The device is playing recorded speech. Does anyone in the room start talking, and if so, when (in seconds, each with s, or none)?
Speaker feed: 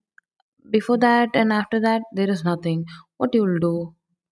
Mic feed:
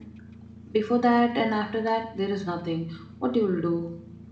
none